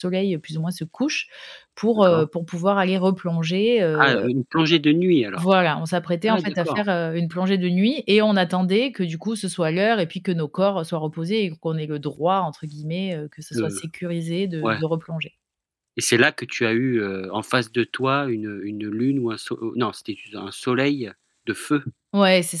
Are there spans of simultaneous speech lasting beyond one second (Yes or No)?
No